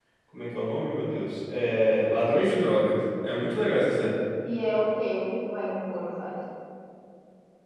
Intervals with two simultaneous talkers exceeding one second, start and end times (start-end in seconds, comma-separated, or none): none